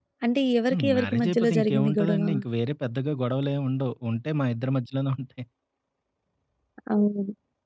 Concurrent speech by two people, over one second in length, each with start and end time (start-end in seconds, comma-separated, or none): 0.7-2.2